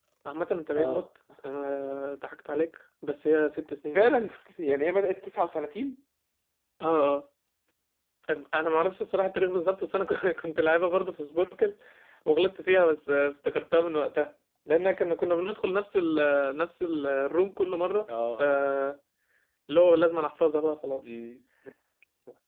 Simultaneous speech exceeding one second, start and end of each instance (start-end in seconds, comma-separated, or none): none